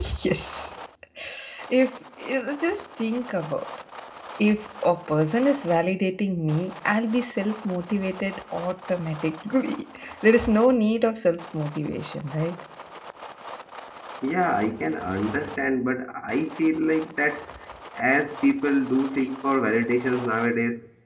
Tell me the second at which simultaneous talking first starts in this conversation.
none

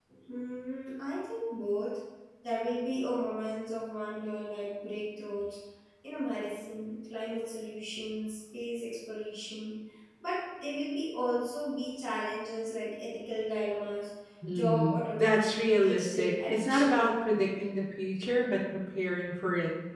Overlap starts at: 14.5 s

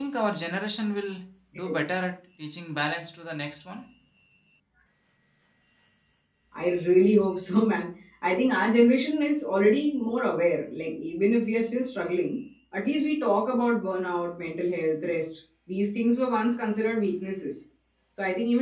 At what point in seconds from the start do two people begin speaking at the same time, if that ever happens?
none

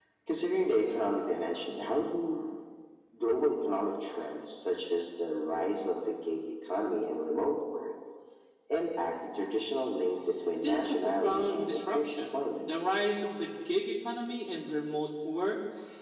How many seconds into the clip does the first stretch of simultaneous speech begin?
10.6 s

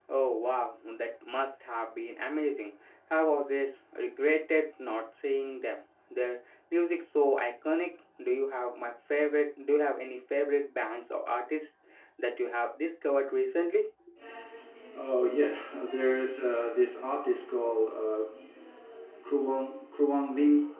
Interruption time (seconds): none

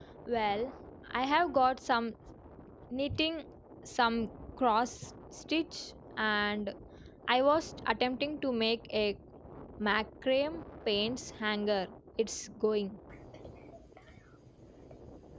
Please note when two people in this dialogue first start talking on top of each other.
none

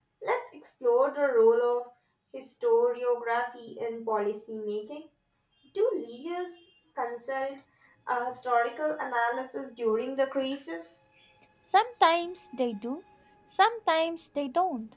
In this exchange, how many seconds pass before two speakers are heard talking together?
none

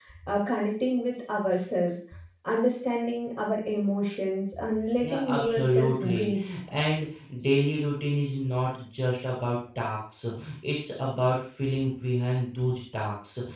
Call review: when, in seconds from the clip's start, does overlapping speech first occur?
5.0 s

